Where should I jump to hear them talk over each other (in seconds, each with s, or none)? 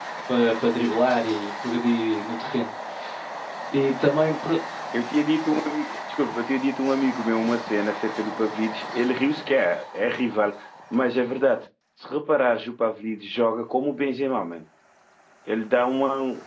none